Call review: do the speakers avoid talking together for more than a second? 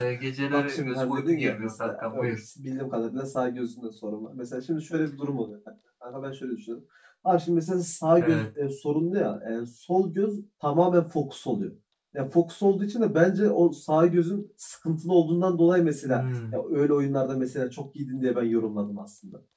No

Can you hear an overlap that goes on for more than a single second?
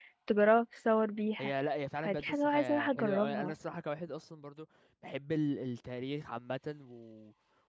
Yes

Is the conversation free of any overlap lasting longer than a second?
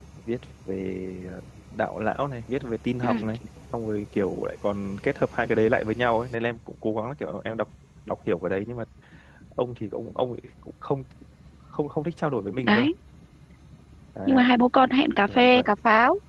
Yes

